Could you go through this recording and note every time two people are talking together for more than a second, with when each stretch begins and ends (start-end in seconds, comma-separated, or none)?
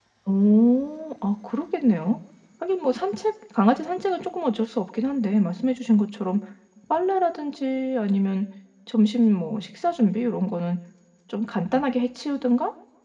none